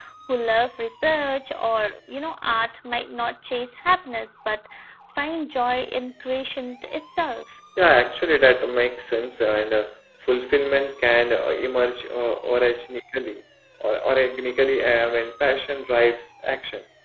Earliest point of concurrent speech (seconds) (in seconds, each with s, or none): none